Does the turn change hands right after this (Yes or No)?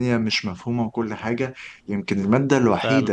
No